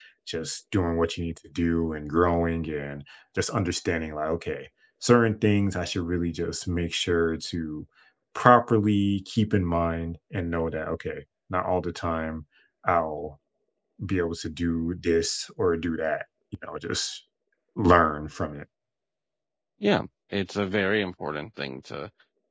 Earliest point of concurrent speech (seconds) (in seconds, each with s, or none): none